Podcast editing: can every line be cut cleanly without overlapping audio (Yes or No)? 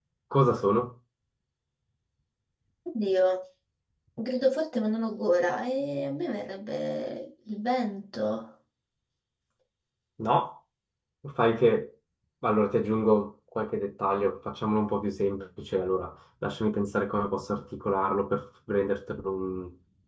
Yes